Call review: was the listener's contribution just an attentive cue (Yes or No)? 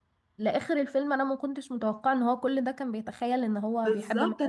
No